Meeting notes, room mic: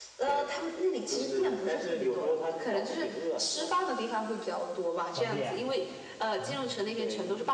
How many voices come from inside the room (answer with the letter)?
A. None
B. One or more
B